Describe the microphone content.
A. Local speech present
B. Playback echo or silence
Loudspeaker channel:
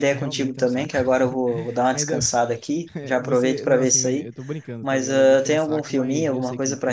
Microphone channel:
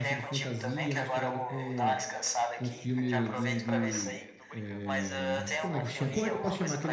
A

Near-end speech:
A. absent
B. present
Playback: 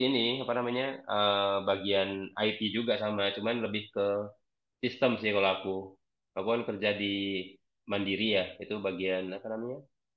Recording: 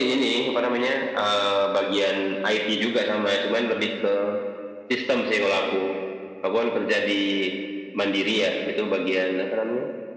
A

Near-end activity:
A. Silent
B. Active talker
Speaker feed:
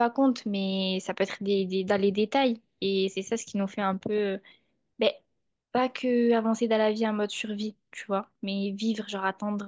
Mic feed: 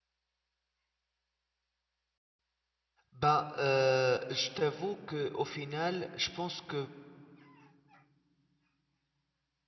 B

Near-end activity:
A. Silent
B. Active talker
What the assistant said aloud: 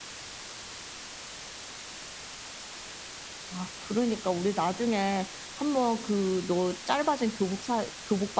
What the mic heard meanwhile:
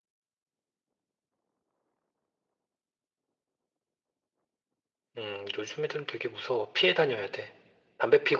B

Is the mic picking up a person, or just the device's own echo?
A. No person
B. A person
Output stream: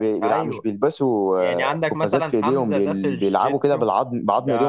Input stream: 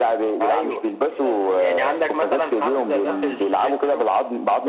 B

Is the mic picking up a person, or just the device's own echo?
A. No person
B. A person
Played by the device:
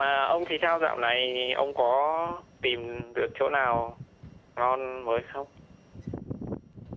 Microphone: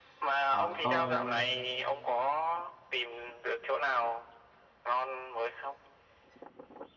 B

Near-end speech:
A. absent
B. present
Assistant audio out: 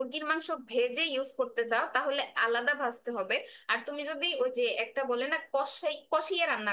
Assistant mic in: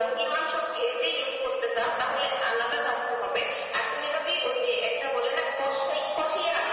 A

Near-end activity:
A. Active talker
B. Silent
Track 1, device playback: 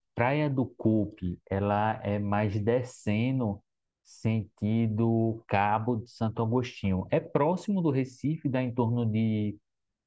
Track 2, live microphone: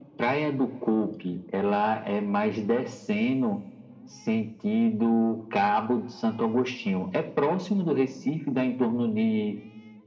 B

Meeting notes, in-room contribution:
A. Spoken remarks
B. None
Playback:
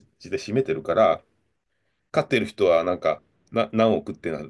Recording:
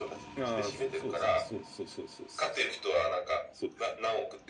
A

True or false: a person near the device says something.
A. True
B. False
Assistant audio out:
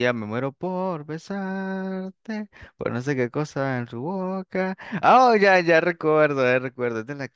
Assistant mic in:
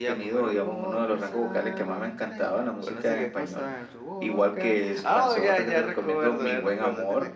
A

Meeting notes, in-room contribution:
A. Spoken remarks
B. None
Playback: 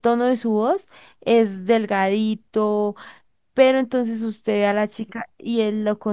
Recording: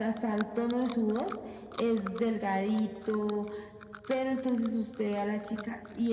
B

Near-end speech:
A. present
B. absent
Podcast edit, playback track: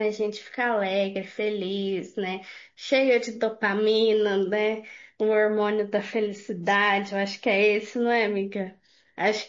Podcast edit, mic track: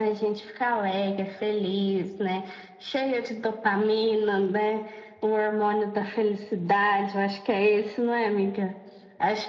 B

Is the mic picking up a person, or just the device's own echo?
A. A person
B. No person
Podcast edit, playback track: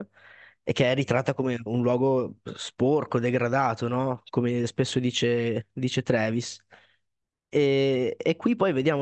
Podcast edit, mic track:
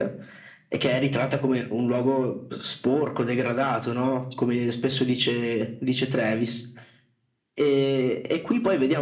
B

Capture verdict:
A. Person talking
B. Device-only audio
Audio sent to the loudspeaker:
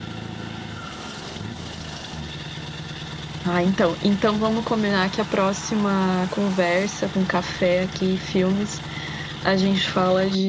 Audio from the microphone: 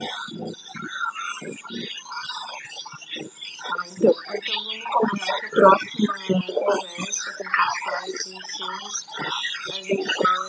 B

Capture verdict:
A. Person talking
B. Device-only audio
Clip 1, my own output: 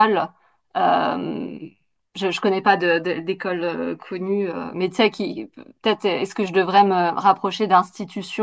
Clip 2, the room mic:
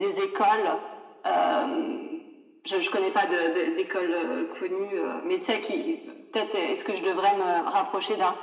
B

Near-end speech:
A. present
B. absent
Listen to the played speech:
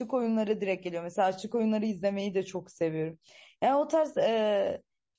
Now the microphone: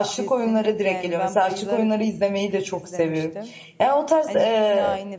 A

